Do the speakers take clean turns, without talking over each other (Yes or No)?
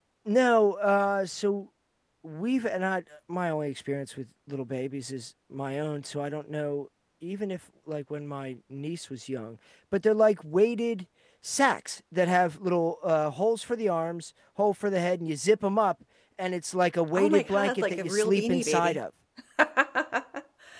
No